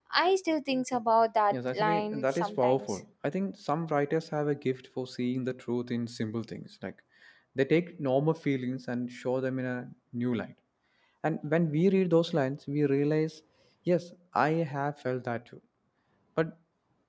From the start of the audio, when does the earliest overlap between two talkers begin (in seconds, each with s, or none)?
1.5 s